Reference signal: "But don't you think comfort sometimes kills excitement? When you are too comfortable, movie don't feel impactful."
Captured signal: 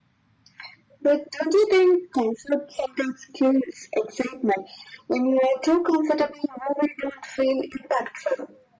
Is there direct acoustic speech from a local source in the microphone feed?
No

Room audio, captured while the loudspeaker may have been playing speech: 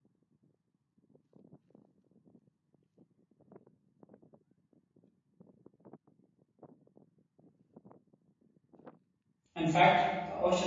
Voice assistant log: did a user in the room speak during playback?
Yes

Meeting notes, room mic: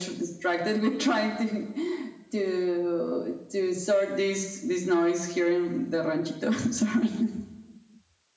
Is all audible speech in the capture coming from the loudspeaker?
Yes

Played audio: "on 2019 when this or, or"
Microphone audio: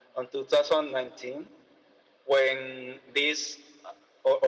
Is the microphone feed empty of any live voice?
Yes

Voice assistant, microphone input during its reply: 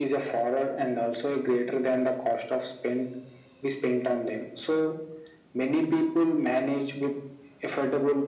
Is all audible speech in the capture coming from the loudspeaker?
Yes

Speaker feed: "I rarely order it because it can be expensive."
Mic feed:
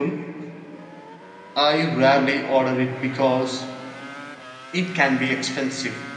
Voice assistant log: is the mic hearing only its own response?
Yes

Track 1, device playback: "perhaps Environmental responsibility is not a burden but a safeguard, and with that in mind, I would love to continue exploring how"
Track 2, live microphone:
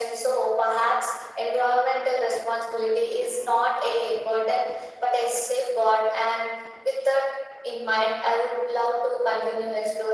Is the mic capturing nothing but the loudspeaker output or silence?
Yes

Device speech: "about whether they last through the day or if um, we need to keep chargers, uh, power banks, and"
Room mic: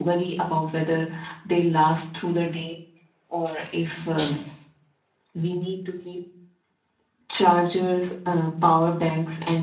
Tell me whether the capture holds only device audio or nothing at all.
Yes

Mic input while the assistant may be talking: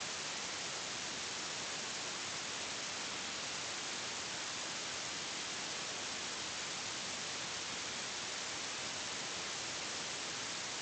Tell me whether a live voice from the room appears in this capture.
No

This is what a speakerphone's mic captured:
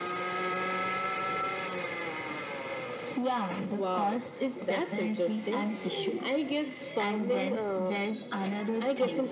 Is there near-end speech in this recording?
No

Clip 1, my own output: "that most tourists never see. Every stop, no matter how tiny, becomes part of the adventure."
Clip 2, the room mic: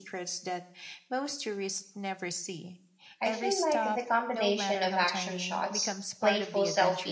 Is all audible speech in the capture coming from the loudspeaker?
No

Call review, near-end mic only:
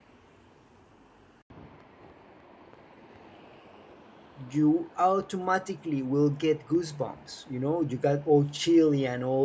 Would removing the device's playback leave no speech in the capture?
No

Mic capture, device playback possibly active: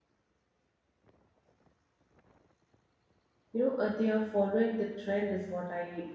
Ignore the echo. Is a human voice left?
Yes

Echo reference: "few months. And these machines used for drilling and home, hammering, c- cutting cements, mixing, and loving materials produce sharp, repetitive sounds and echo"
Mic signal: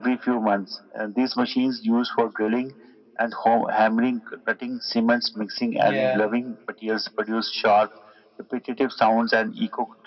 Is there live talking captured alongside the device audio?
Yes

